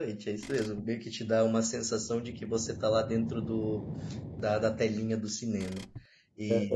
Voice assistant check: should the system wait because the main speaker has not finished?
No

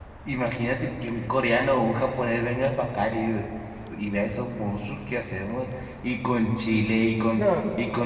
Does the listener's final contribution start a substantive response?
No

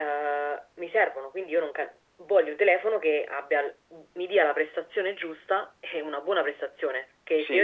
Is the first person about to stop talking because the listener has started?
No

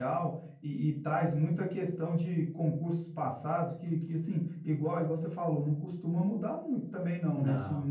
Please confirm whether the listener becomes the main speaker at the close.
No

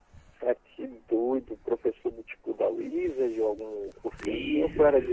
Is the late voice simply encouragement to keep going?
No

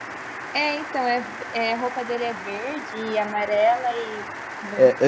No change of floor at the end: No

